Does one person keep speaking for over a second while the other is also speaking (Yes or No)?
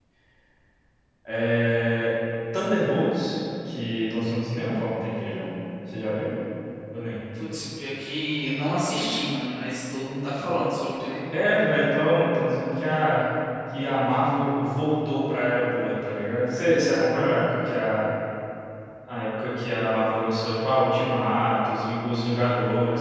No